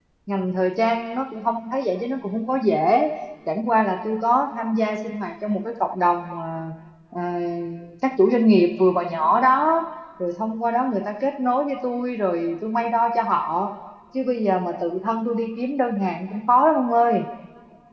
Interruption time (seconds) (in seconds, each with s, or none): none